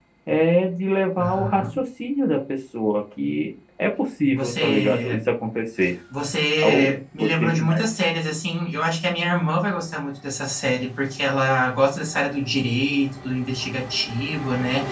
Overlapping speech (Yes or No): Yes